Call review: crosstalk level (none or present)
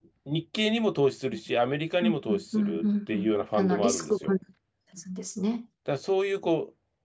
present